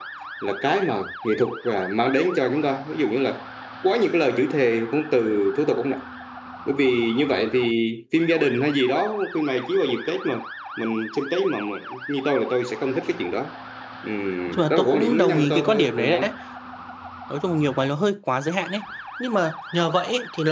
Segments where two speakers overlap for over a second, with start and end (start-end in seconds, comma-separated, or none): 14.5-16.3